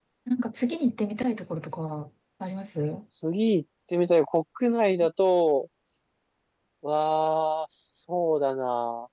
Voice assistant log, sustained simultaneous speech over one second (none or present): none